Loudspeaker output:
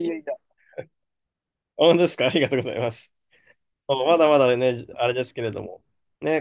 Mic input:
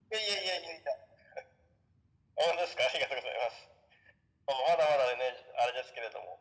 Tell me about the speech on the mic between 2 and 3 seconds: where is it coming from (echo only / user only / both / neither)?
echo only